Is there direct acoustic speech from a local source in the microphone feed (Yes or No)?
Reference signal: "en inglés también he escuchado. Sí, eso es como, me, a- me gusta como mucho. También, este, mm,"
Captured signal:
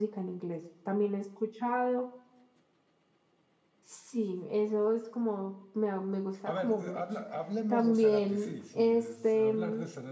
Yes